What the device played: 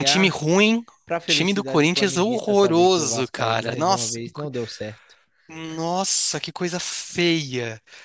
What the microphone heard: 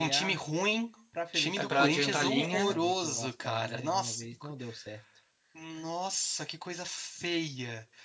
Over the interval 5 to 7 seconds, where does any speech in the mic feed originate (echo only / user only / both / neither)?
echo only